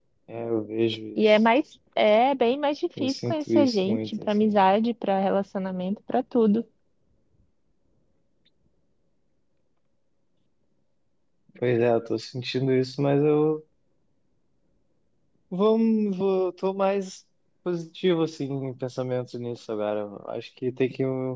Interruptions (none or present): present